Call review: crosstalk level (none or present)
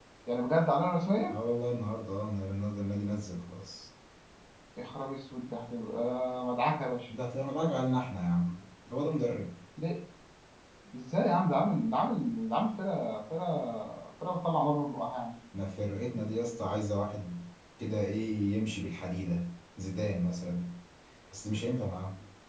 none